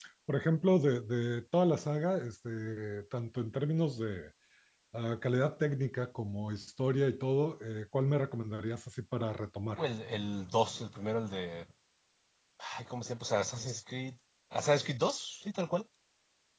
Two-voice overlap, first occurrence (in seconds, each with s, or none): none